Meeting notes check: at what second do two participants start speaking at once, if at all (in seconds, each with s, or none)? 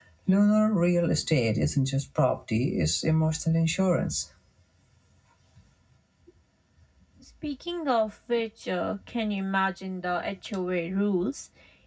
none